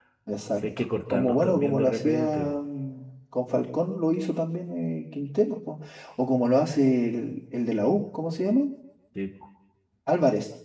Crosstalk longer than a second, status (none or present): present